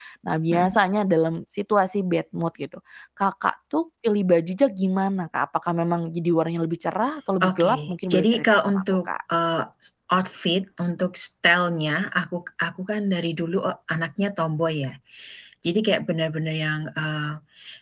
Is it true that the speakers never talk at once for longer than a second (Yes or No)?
No